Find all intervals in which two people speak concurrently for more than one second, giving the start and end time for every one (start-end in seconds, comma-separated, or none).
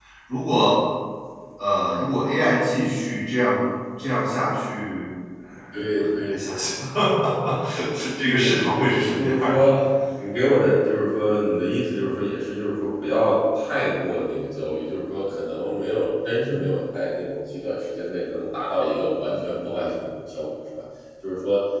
8.2-9.6